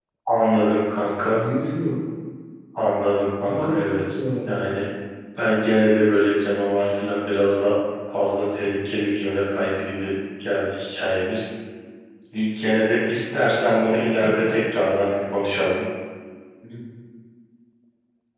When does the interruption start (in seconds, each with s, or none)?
3.5 s